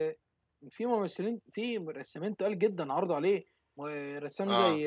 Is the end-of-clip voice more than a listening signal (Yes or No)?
No